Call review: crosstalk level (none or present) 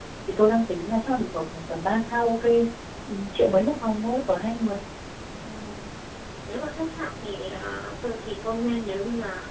none